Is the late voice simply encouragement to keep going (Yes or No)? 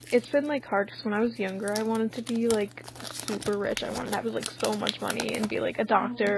Yes